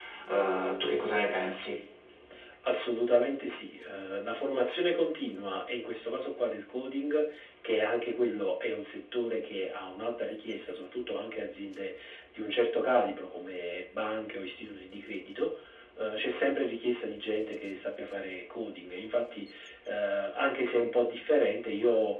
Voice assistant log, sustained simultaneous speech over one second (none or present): none